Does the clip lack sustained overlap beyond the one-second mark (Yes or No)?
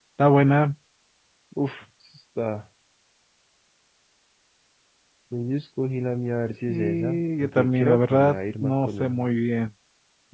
No